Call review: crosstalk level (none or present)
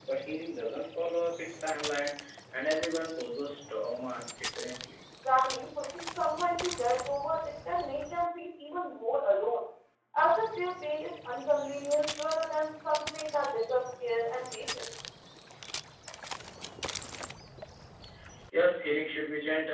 none